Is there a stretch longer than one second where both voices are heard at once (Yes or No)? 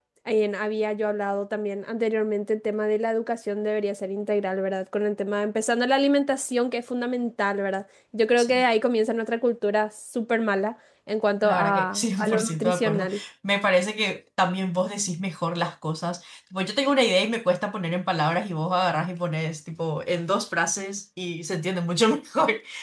Yes